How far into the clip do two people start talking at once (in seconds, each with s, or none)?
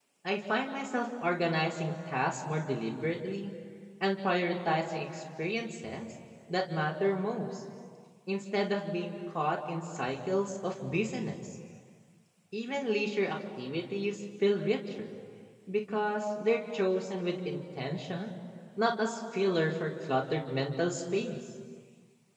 none